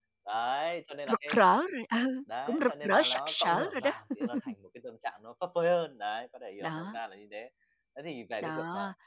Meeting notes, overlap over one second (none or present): present